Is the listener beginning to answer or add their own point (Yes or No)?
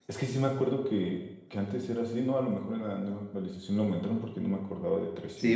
Yes